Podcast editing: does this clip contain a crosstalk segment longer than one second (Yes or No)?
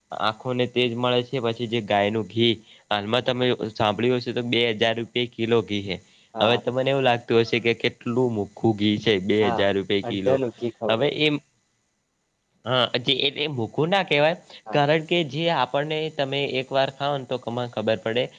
No